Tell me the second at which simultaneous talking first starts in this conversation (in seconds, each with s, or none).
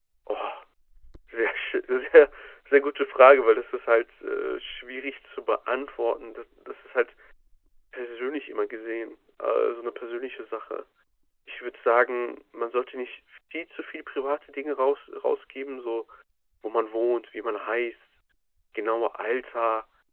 none